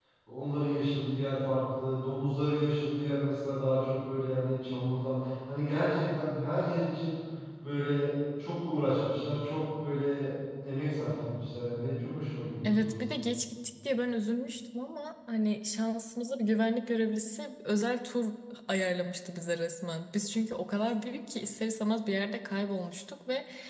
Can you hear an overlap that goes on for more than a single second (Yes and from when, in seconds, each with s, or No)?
No